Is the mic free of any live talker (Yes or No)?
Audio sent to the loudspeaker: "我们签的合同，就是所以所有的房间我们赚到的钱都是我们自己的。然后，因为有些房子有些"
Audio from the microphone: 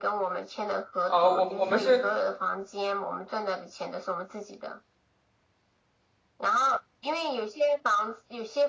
No